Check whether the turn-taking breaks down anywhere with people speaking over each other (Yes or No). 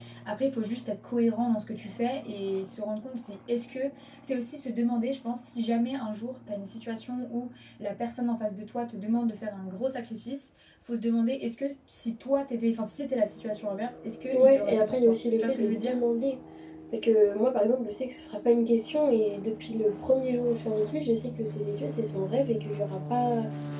Yes